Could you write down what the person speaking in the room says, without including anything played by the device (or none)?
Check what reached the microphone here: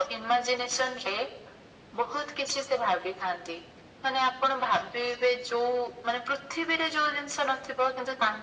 none